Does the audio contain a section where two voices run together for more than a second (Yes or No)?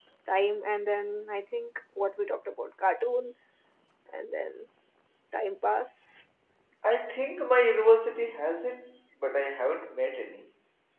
No